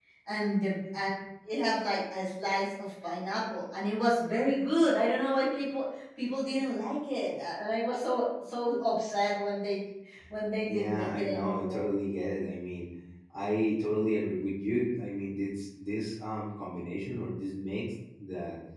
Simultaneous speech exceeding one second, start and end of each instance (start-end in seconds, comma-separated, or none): 10.7-11.9